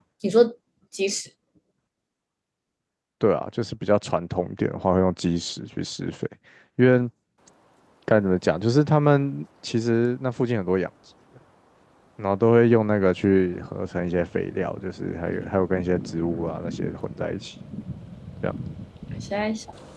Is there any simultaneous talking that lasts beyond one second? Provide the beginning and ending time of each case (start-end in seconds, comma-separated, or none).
none